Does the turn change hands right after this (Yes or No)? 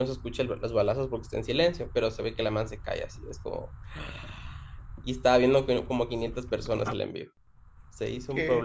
Yes